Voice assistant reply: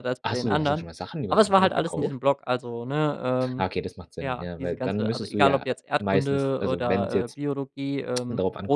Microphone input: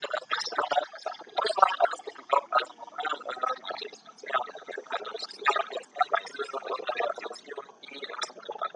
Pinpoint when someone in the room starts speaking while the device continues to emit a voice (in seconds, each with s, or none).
none